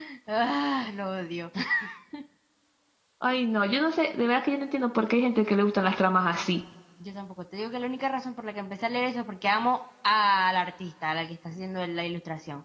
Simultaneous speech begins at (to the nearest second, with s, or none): none